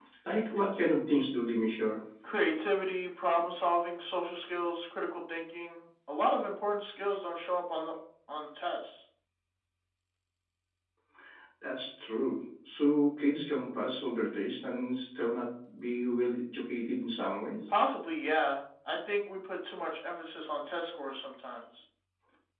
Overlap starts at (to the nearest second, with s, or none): none